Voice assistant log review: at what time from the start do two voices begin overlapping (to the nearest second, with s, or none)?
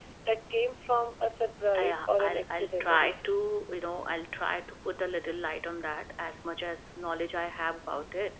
2 s